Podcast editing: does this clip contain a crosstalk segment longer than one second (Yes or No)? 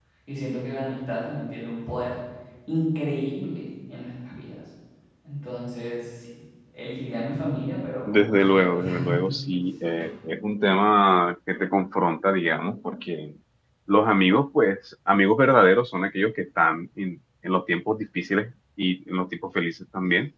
Yes